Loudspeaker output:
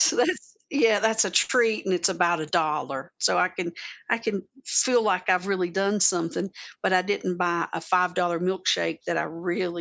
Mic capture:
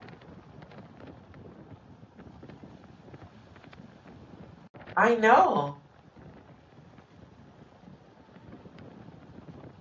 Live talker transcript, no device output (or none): I know.